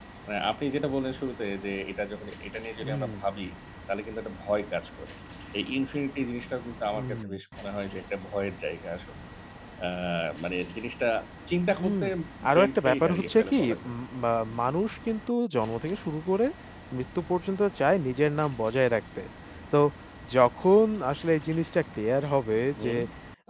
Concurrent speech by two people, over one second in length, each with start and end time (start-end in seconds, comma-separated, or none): 12.6-13.8